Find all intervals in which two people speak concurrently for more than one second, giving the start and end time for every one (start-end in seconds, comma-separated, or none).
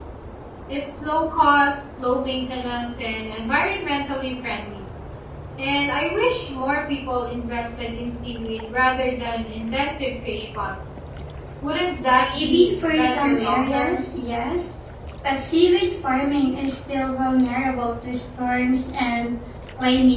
12.3-14.1